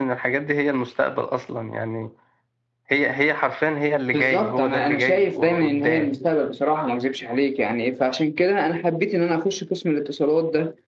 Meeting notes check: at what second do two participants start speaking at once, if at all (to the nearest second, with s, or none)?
4 s